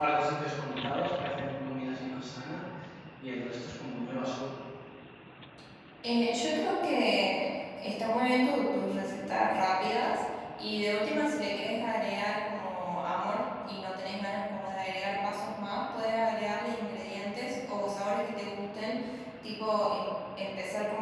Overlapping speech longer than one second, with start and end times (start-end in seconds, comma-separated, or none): none